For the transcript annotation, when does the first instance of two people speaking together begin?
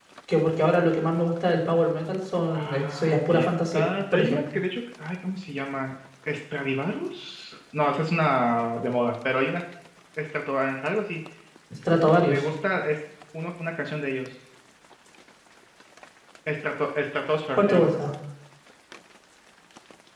2.5 s

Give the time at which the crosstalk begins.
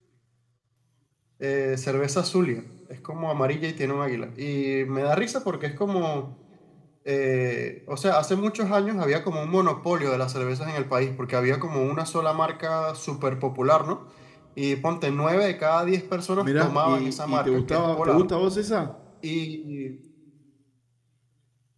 16.4 s

